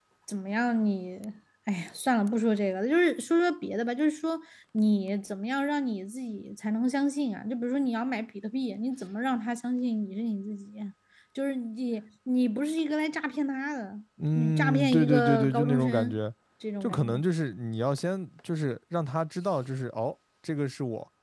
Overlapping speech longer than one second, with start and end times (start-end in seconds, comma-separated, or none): 14.4-16.2